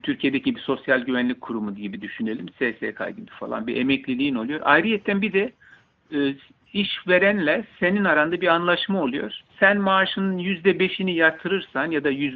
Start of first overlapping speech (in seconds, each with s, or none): none